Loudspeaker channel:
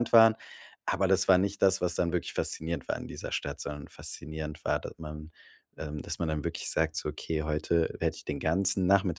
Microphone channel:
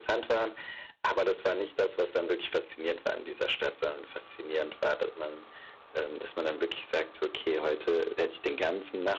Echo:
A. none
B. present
B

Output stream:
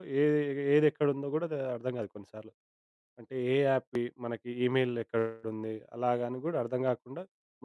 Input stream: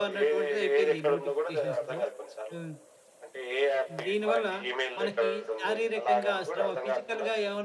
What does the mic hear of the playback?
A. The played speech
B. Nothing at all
A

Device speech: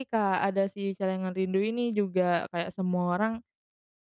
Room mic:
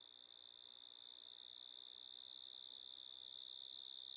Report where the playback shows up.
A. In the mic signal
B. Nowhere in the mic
B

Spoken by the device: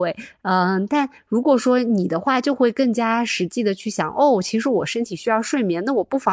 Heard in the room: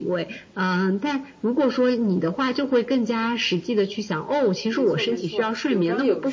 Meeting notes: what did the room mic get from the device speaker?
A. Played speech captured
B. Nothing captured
A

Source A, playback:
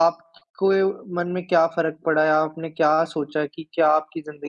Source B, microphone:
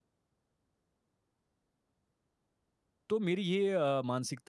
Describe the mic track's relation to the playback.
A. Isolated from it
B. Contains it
A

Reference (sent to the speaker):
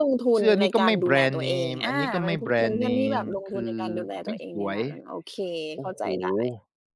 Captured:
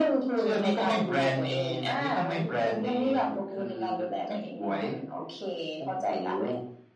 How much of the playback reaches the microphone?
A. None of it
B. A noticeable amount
B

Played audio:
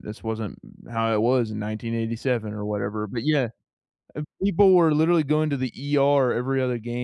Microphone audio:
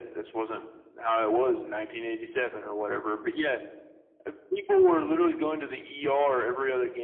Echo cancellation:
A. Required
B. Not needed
A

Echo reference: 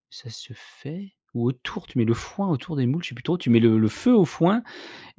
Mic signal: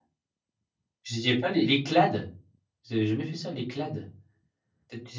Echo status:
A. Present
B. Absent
B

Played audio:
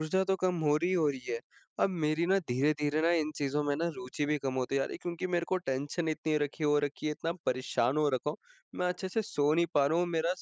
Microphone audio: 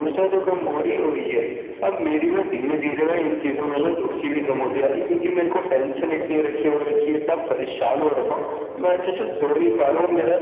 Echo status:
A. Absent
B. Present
B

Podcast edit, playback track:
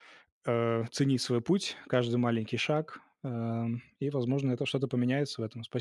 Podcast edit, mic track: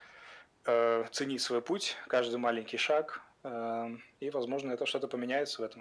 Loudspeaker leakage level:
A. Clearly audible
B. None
A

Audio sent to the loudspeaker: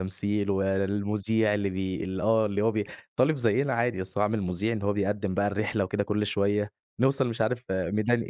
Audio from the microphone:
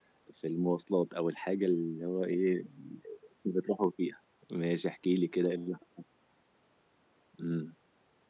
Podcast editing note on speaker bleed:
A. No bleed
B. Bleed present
A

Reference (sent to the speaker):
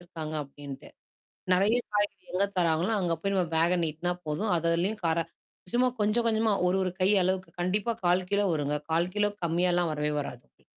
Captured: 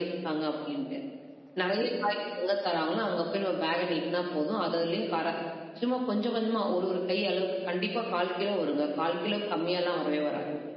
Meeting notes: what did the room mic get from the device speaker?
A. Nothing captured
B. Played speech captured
B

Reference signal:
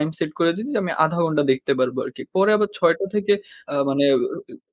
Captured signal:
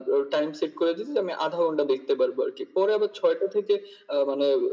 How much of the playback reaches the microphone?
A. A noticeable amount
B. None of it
A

